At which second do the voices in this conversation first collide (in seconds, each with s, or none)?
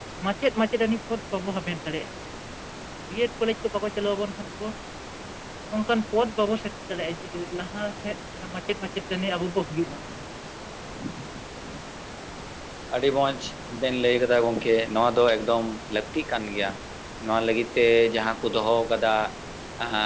none